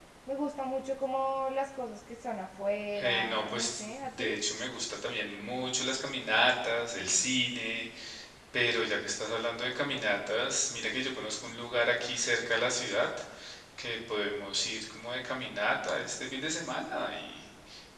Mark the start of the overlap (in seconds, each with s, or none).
3.0 s